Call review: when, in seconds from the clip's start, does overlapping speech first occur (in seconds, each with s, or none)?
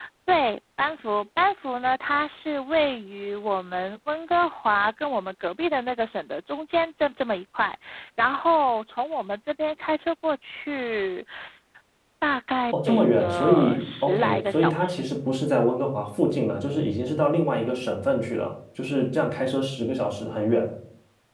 12.7 s